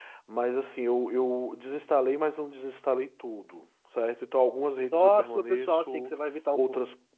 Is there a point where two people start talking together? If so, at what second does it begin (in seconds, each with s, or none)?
4.9 s